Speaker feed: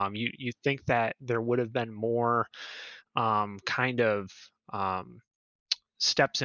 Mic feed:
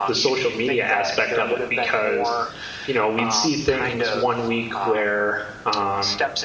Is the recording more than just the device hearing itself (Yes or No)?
Yes